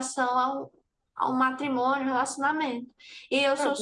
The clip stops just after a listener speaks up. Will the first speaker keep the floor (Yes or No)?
Yes